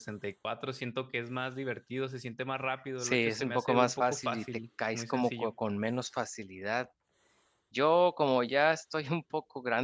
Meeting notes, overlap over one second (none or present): present